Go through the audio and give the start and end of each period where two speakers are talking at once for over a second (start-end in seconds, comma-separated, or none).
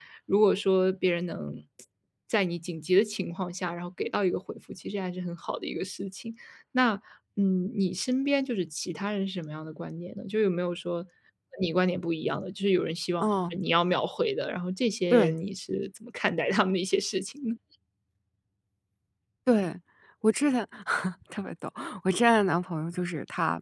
none